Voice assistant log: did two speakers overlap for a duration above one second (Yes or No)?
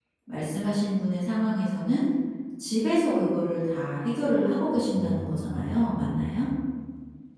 Yes